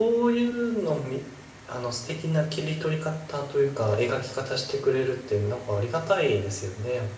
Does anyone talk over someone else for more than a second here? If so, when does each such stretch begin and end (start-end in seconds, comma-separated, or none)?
none